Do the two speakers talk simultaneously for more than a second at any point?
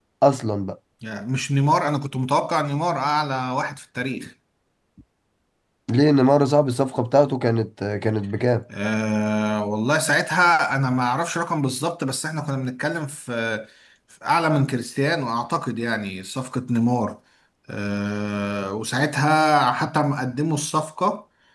No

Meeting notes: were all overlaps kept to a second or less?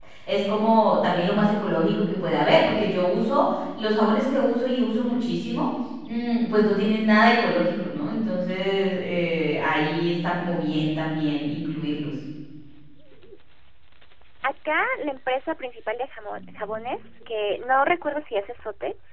Yes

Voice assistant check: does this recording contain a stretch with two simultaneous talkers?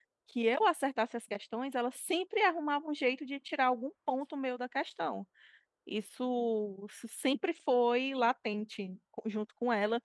No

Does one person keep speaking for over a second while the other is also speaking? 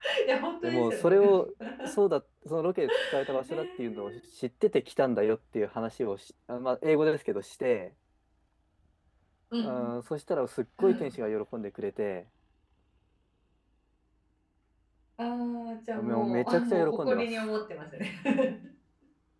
Yes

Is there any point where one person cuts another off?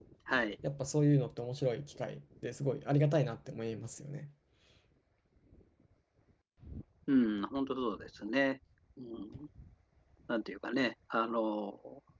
No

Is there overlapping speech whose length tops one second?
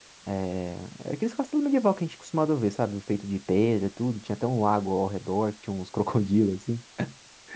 No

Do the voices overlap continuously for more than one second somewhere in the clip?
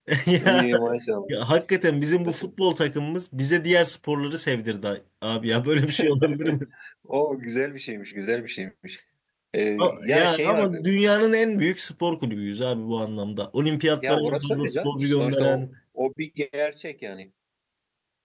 Yes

